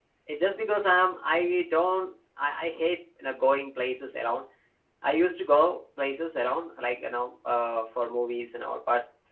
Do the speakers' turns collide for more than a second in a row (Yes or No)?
No